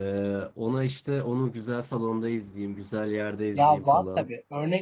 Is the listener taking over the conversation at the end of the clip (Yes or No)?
Yes